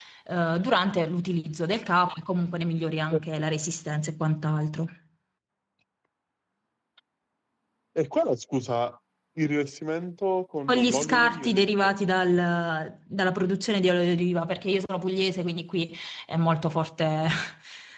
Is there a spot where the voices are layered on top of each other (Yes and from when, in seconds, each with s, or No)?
Yes, from 10.7 s